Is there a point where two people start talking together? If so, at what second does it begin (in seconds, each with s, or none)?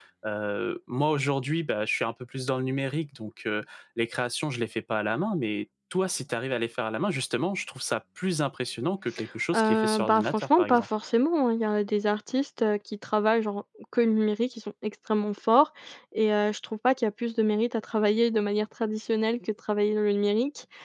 9.5 s